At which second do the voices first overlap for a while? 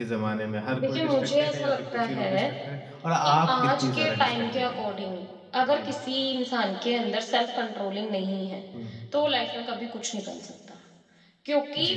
0.8 s

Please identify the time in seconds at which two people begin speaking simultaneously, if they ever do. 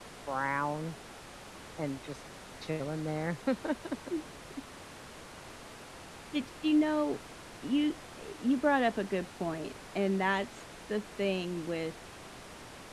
none

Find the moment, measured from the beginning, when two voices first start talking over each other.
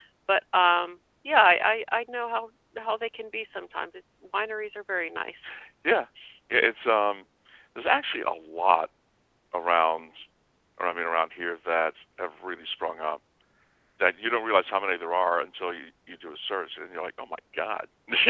none

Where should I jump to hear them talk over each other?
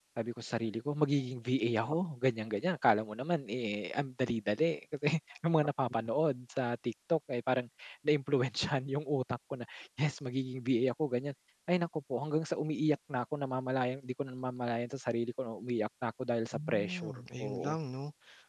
16.5 s

